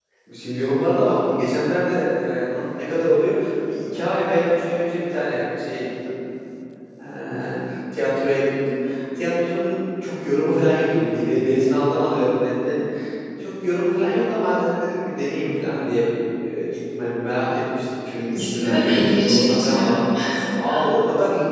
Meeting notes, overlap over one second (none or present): present